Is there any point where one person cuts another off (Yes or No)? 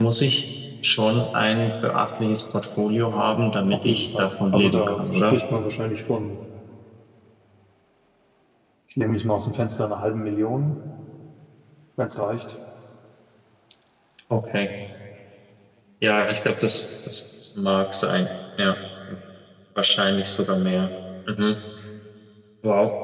Yes